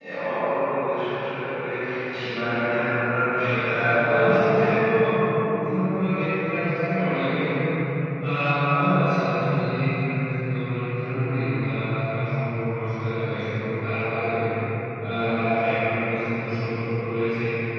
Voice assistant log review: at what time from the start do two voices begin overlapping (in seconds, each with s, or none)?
3.5 s